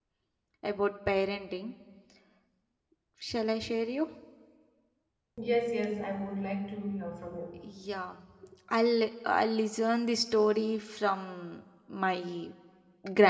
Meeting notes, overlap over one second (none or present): none